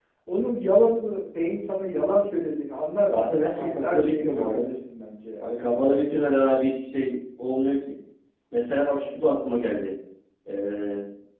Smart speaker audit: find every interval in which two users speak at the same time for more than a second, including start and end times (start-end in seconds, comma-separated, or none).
3.1-4.7